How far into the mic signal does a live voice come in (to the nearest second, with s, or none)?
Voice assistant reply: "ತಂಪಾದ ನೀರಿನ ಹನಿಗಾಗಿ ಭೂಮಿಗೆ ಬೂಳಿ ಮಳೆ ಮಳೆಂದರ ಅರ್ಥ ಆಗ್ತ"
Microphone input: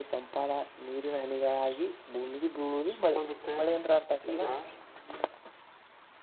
3 s